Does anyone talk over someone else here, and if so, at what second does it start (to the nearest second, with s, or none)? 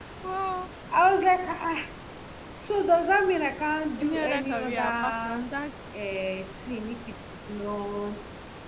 4 s